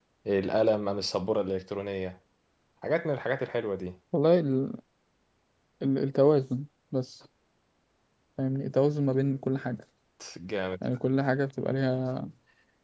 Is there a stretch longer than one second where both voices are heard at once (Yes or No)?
No